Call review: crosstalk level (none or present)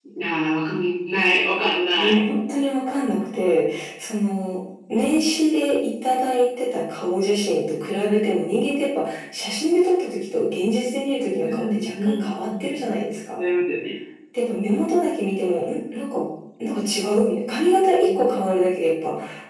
present